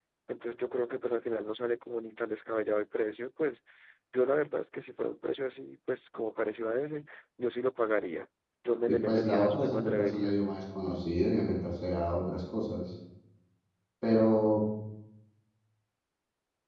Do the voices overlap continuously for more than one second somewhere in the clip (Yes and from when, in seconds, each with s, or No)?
Yes, from 8.9 s